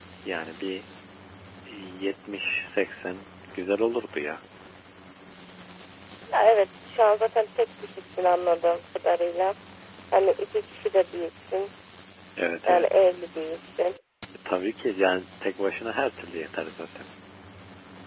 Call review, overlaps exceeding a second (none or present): none